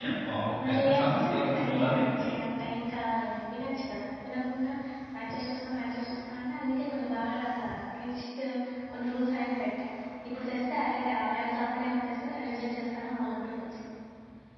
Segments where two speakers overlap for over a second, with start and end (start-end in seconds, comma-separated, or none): 0.6-2.2